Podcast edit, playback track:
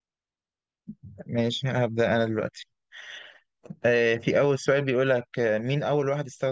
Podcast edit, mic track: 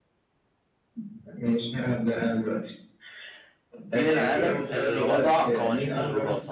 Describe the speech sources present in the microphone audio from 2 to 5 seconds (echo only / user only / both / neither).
both